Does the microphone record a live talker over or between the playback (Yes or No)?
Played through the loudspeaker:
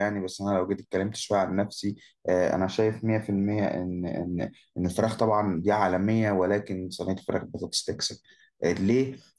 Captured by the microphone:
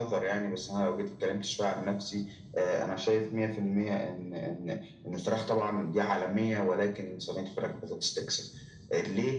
No